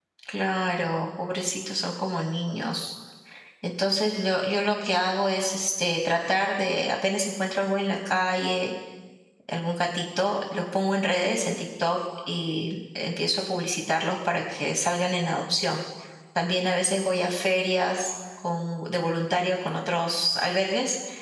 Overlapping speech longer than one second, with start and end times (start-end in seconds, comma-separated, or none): none